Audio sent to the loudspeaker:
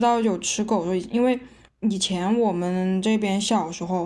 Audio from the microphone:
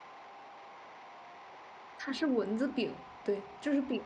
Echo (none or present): none